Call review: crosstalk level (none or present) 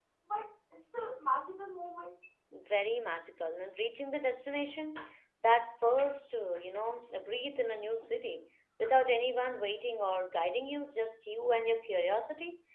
none